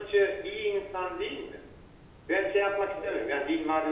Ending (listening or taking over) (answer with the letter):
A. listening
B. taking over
A